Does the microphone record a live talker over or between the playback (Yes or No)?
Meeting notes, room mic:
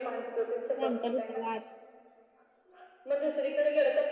Yes